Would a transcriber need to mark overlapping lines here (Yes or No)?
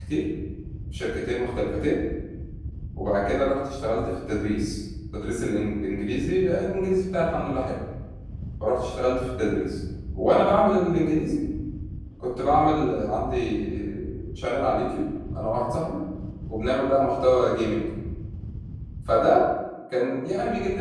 No